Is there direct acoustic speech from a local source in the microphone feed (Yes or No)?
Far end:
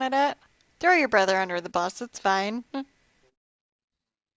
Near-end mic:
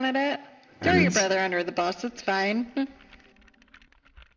Yes